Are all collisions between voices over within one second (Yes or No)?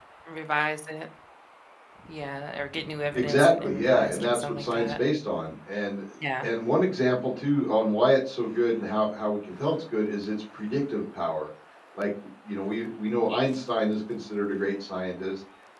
No